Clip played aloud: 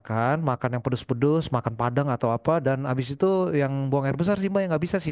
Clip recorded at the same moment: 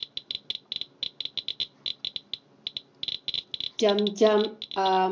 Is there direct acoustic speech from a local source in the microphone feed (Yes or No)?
Yes